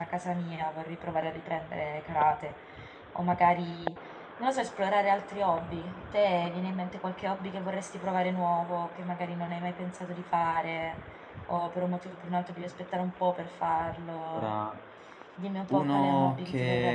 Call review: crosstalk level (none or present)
present